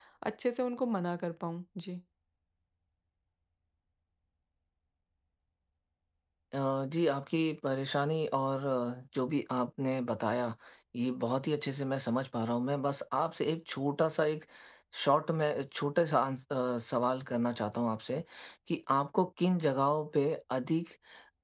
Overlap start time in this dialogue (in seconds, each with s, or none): none